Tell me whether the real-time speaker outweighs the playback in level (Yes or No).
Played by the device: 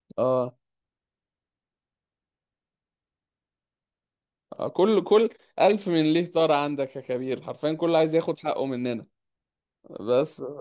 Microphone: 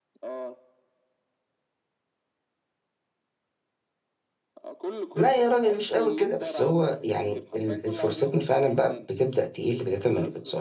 Yes